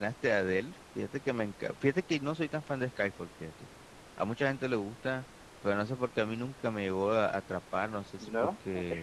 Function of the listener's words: listening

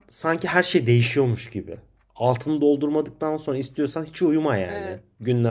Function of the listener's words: listening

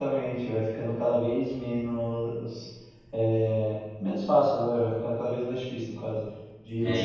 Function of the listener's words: taking over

